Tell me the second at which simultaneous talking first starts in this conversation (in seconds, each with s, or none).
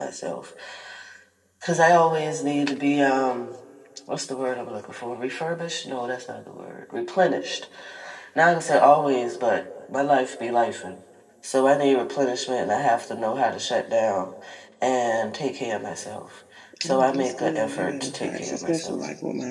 16.7 s